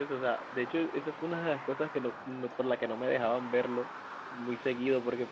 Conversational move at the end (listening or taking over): listening